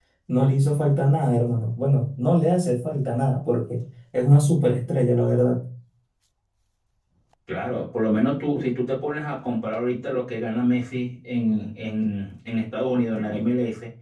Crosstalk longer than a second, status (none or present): none